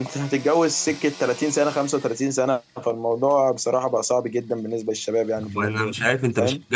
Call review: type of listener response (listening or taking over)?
taking over